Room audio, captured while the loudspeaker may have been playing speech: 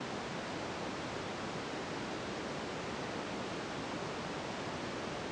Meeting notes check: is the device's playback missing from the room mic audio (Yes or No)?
Yes